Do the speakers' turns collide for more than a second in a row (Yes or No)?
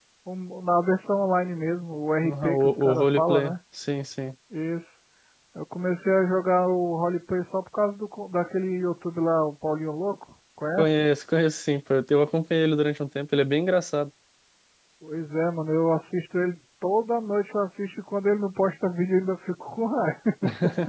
Yes